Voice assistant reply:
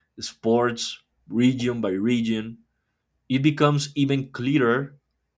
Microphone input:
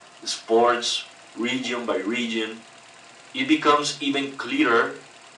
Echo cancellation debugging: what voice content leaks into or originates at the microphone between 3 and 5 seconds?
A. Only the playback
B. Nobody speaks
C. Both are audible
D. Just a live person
A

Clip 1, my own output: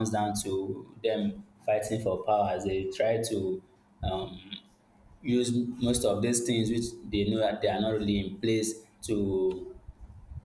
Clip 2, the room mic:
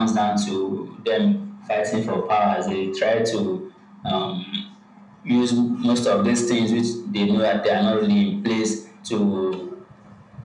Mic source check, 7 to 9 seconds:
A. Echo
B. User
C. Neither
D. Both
A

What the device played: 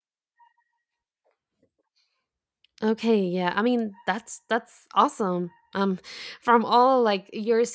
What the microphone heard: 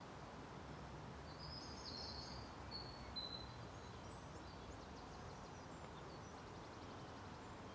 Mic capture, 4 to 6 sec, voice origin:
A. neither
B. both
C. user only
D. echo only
A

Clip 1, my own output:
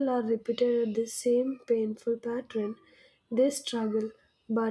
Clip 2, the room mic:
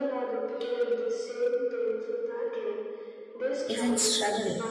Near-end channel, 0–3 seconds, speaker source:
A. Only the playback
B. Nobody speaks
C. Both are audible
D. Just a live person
A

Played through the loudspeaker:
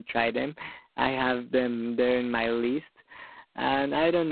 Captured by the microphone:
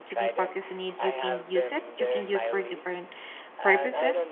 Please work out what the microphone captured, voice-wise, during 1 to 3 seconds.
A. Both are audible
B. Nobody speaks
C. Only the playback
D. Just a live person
A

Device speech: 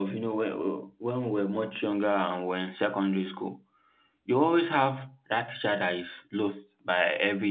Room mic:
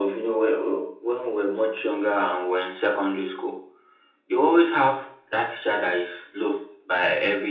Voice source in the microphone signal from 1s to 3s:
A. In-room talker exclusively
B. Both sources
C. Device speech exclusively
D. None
C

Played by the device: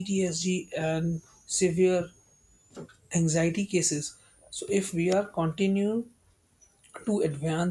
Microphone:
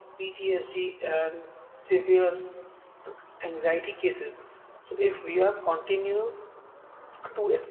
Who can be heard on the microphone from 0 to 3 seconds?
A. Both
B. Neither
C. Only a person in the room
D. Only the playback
D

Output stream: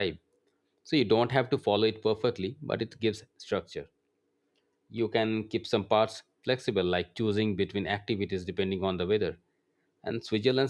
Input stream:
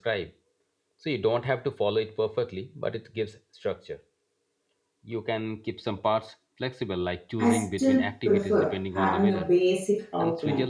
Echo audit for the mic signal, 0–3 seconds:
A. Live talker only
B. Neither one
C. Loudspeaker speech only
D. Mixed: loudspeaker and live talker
C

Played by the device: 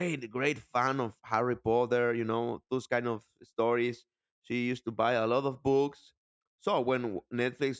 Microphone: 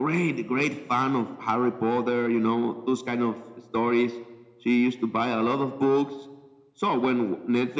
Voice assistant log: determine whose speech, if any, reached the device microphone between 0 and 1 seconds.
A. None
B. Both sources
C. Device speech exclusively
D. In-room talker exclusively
C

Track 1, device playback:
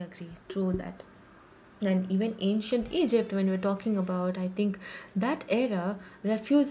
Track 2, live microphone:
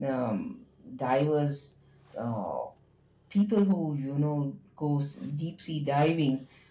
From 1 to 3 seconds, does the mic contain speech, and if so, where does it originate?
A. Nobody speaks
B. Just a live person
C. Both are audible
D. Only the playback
B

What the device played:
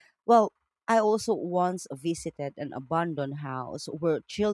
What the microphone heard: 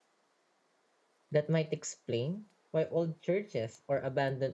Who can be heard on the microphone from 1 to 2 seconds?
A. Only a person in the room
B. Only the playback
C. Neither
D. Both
A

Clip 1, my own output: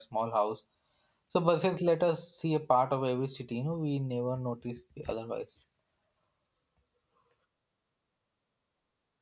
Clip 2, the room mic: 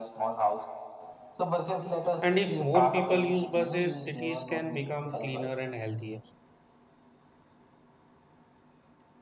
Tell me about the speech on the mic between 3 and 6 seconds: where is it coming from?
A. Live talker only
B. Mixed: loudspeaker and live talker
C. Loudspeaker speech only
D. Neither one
B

